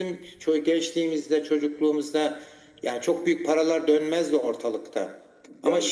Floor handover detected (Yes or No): No